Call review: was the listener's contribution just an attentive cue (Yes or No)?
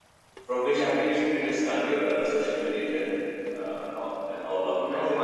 No